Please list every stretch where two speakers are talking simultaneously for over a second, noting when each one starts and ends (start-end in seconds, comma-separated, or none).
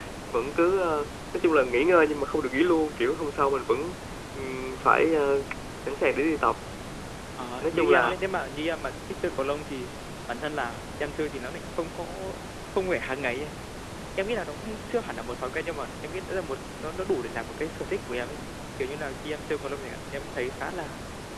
none